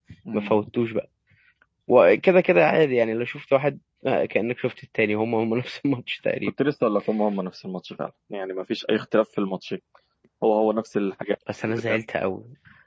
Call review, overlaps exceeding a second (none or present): none